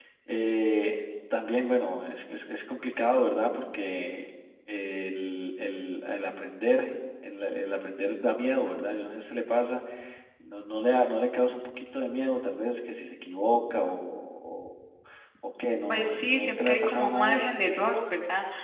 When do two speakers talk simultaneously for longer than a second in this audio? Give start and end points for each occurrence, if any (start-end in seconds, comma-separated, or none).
15.9-17.5